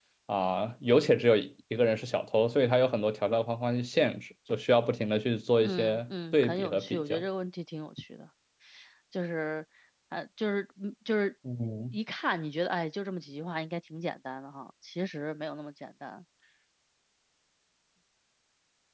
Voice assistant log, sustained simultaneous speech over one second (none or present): present